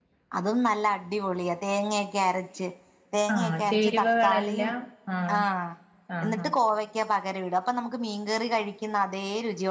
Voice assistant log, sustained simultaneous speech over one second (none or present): present